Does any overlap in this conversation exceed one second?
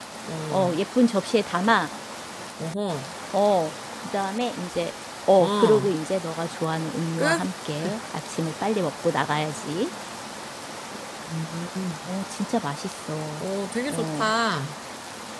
No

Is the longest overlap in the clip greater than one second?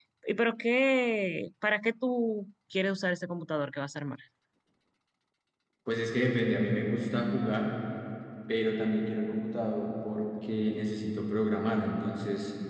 No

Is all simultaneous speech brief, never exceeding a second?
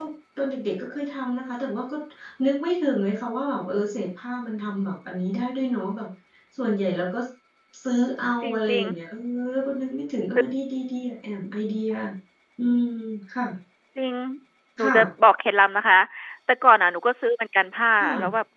Yes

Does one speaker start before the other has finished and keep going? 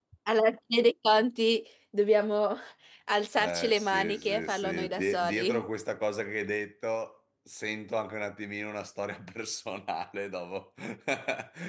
Yes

